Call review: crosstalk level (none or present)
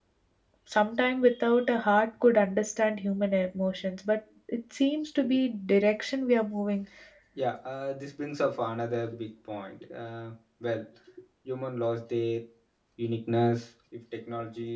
none